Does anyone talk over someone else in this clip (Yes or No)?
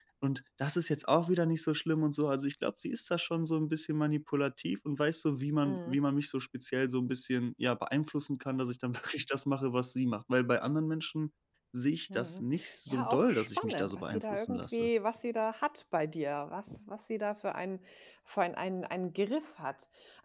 Yes